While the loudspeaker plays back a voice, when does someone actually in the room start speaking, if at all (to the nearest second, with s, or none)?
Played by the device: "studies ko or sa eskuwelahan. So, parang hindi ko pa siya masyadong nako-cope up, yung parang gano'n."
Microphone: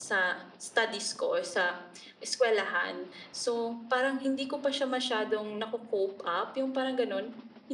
none